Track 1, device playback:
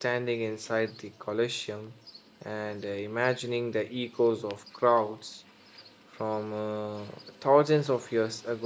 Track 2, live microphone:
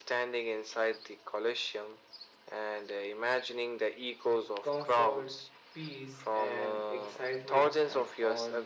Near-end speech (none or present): present